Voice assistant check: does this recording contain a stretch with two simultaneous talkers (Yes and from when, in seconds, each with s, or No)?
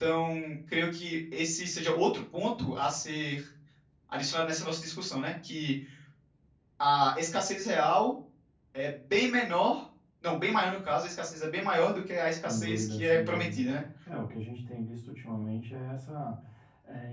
Yes, from 12.4 s